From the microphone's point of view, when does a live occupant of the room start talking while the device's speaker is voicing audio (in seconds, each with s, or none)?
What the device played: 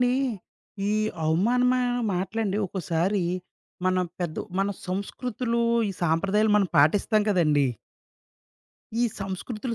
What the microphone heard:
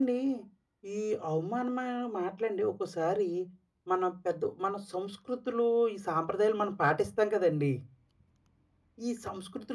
none